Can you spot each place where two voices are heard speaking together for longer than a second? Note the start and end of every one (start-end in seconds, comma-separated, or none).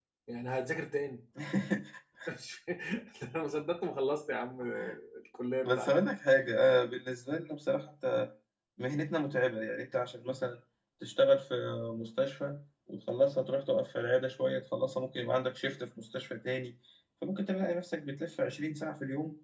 none